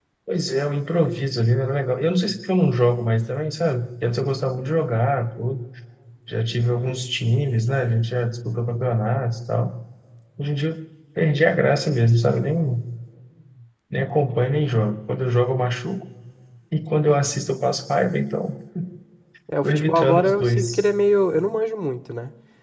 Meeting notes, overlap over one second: present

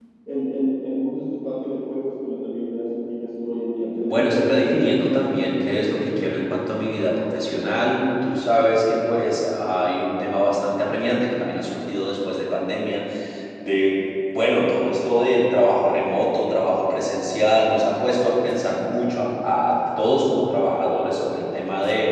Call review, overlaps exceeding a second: present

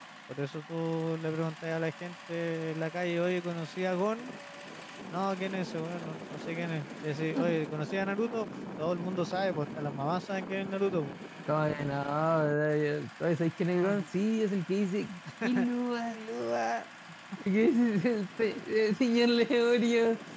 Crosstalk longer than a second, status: none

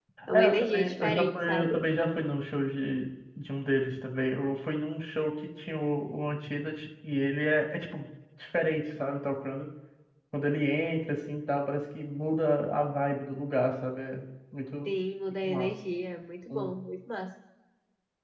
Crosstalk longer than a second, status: present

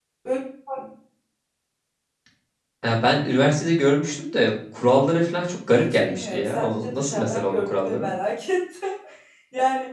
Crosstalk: present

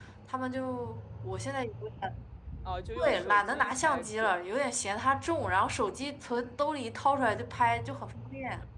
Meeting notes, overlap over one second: present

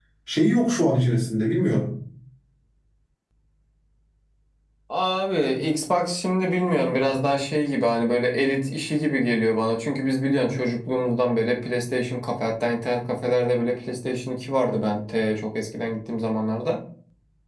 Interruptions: none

